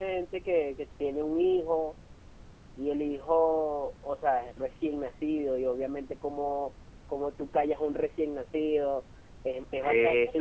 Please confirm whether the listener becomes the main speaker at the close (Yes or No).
No